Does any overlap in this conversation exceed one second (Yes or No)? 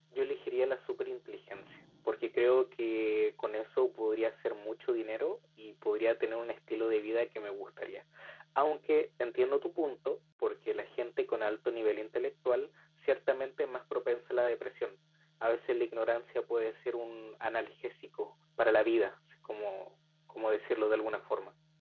No